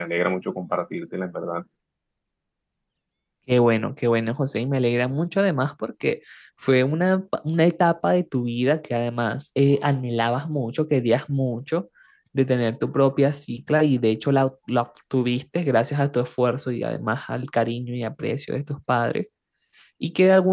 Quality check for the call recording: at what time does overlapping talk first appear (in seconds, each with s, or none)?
none